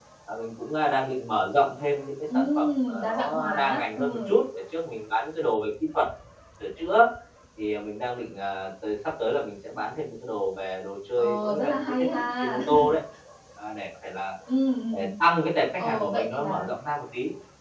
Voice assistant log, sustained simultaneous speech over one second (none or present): present